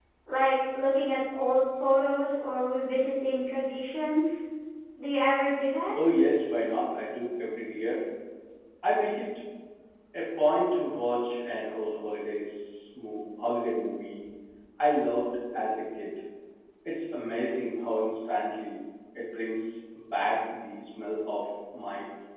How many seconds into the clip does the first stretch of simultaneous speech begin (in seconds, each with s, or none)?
none